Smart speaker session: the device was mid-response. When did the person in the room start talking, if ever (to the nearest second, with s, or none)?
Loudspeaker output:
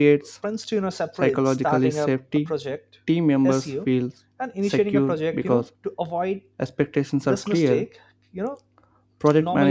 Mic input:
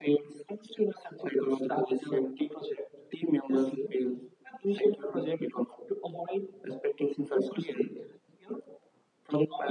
none